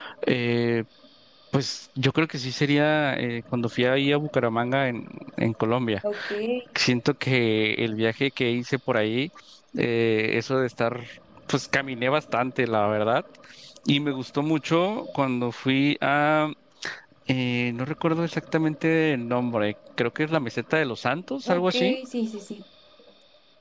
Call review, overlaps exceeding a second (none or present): none